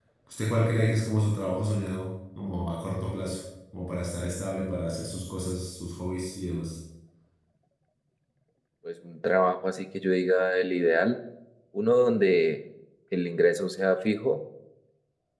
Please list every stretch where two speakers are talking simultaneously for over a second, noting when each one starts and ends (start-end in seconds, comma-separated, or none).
none